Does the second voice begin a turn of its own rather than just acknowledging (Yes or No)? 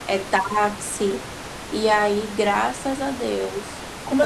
Yes